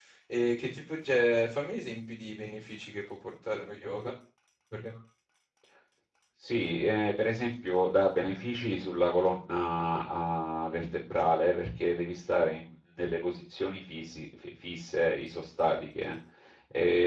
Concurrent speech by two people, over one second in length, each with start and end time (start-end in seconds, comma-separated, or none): none